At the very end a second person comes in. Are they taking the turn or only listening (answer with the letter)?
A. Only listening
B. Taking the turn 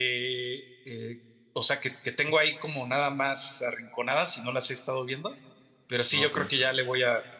A